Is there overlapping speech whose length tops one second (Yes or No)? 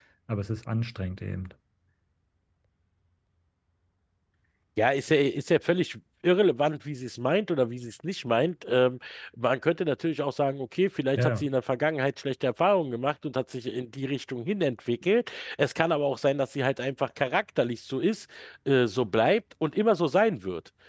No